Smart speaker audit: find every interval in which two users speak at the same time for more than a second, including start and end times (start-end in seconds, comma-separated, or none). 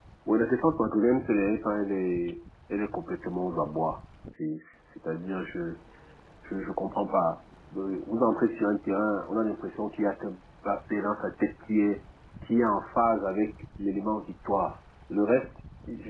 none